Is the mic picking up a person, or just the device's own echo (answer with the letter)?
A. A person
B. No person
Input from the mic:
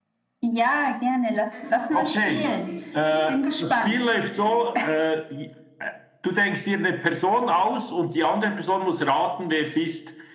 A